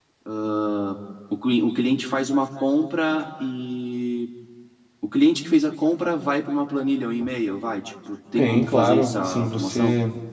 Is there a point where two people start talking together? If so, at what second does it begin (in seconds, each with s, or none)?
8.4 s